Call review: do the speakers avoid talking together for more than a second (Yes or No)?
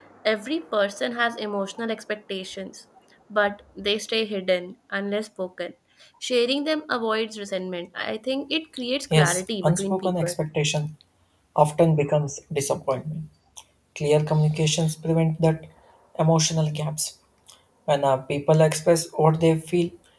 No